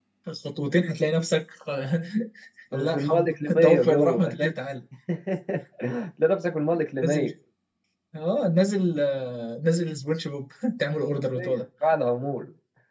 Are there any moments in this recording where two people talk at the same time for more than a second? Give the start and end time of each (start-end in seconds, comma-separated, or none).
2.7-4.3